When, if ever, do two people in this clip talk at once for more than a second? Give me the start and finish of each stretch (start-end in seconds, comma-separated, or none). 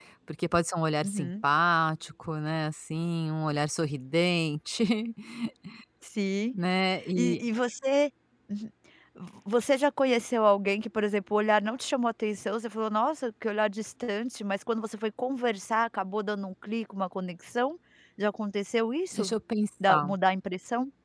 none